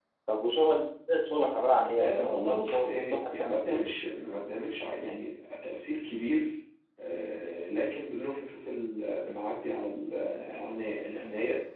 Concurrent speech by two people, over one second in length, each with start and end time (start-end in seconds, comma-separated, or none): 1.9-3.9